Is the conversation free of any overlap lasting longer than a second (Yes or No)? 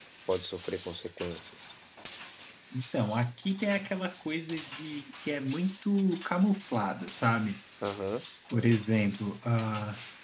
Yes